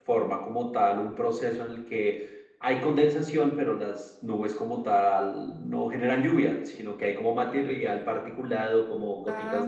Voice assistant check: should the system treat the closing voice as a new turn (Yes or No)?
No